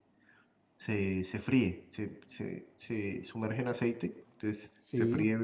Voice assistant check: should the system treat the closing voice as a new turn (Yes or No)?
No